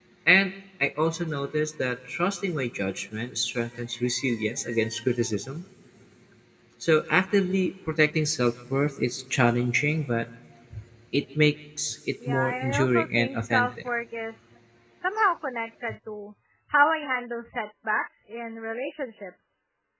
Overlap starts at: 12.2 s

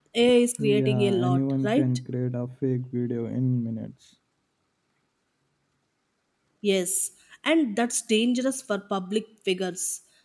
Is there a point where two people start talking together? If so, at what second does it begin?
0.6 s

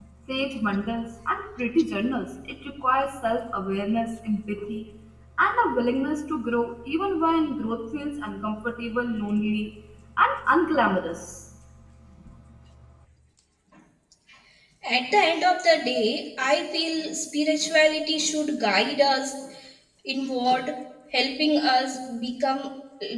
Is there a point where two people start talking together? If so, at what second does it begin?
none

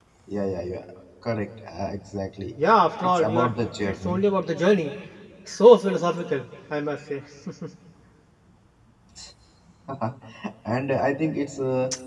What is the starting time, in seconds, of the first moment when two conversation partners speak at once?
3.0 s

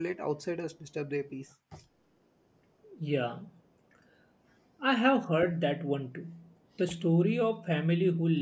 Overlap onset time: none

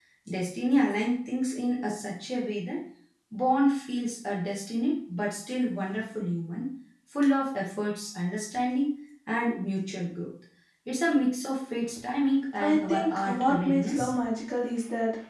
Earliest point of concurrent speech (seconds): 12.6 s

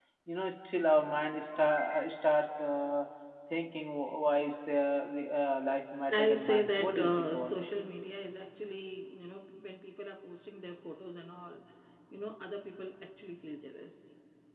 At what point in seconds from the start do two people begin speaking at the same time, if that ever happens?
6.1 s

